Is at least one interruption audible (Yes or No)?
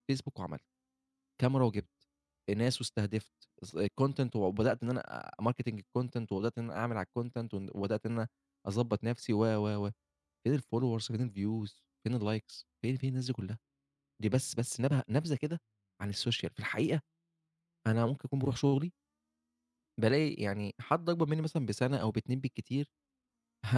No